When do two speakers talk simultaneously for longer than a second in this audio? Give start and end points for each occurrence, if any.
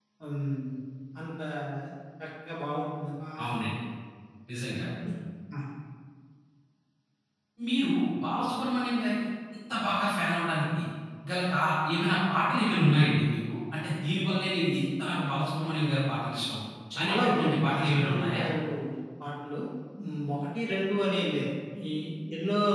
17.0-18.4

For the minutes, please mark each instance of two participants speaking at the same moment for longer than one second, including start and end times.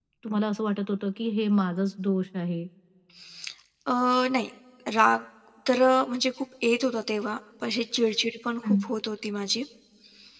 none

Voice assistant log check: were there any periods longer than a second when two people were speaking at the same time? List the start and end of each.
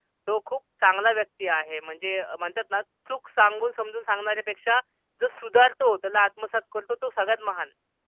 none

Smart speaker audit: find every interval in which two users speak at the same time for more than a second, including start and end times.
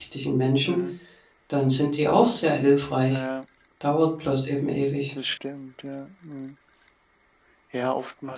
none

